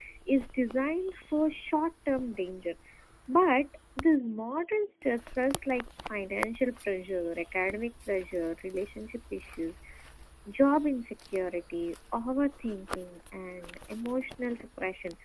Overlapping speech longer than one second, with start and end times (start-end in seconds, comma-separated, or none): none